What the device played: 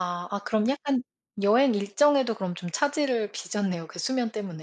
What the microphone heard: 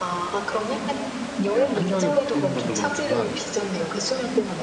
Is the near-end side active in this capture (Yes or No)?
Yes